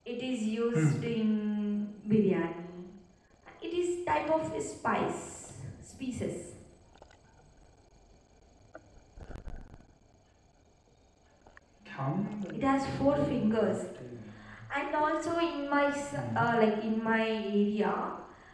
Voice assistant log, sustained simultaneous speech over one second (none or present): present